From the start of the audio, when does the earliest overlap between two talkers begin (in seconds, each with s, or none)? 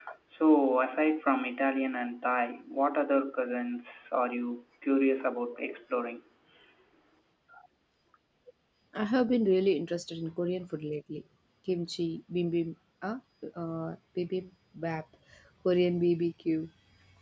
none